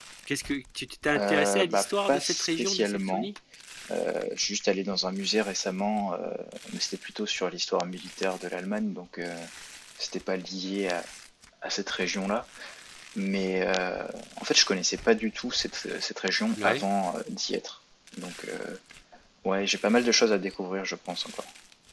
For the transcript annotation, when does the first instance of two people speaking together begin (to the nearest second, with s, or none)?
1 s